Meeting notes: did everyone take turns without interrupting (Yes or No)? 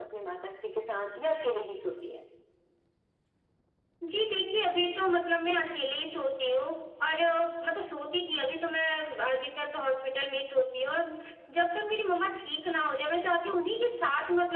Yes